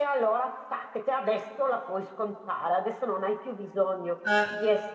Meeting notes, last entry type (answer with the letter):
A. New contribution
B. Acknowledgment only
B